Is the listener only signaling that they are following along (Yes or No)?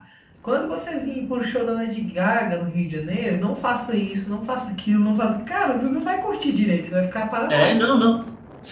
No